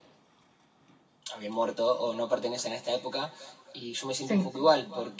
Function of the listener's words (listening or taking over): listening